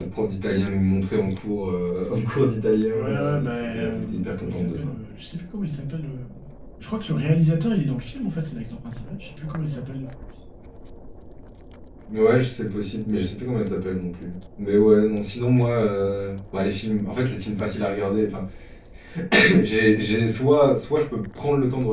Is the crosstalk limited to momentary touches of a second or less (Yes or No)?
No